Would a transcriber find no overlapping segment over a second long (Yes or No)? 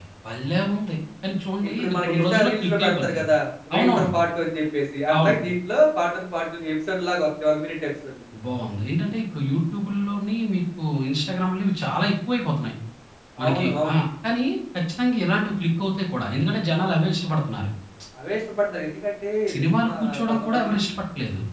No